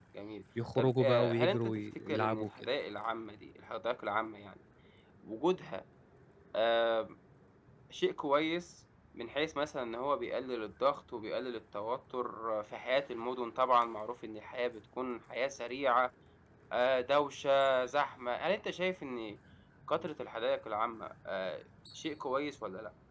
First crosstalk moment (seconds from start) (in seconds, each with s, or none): 0.8 s